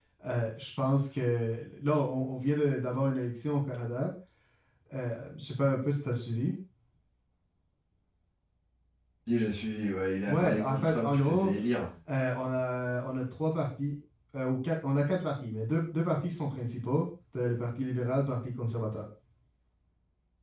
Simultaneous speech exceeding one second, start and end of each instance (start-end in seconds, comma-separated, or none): 10.3-11.5